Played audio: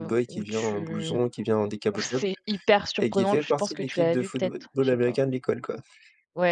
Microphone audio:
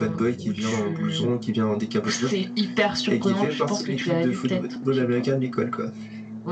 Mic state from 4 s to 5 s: echo only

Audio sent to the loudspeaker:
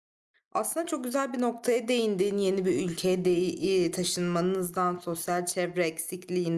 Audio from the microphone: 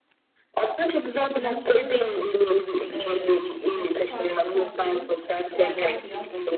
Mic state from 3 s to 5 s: both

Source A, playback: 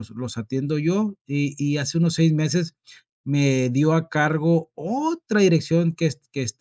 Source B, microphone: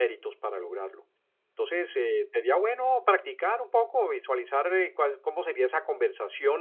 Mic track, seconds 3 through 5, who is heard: user only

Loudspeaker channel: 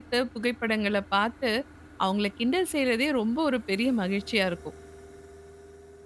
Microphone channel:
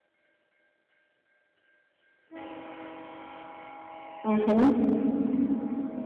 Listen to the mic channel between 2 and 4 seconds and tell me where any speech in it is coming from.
neither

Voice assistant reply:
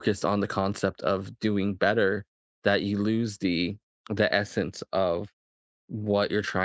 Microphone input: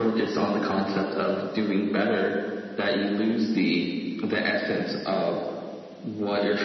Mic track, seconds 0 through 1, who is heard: echo only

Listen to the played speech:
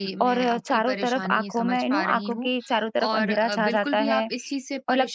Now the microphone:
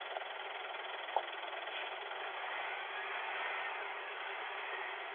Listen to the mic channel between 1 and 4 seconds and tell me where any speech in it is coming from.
neither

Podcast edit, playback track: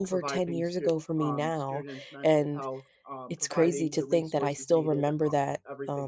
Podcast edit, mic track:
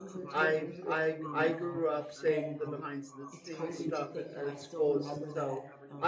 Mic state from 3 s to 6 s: both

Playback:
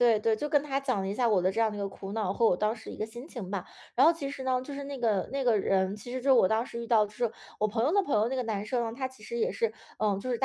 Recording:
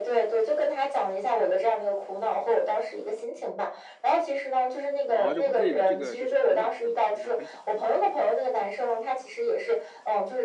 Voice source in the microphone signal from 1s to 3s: echo only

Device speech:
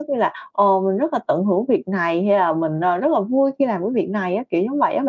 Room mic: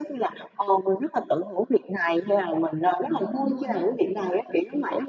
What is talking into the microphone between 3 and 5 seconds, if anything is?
both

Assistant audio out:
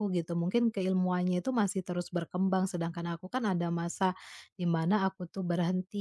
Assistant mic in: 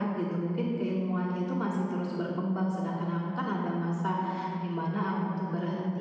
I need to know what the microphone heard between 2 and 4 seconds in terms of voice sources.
echo only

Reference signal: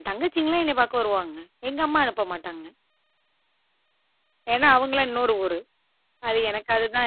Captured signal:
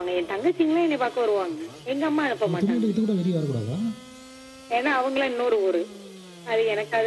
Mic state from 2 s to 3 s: both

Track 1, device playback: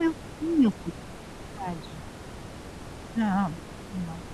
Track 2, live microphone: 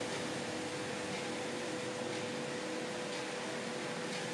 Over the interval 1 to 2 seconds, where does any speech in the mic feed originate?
neither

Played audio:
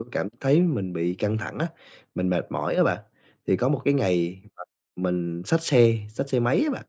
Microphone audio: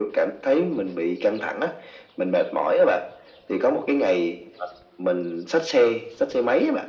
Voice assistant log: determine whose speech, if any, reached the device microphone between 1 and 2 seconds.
echo only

